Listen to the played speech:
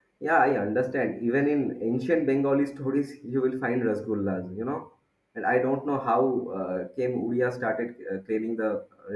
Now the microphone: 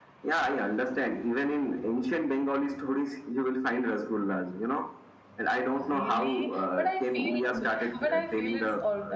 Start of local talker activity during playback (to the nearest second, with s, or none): 6 s